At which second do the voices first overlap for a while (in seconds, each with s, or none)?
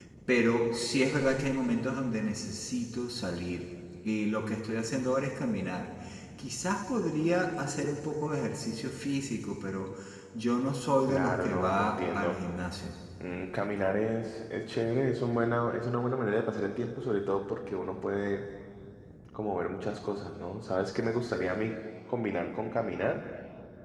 11.0 s